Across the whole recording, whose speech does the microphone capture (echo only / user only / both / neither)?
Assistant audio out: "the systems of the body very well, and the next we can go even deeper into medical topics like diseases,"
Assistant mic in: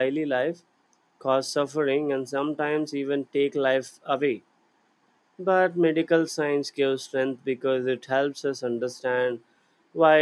user only